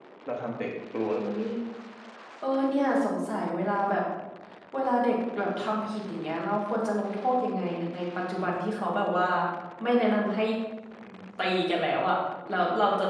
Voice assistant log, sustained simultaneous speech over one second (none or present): none